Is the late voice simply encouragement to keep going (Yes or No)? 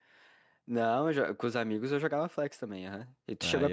No